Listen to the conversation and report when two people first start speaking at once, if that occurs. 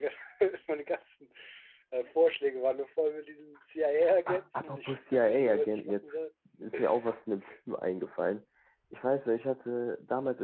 4.3 s

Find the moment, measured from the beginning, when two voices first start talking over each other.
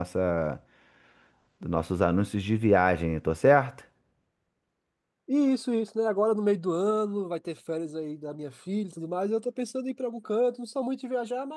none

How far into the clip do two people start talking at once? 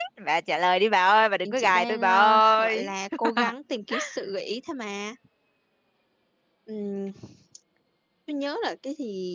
1.4 s

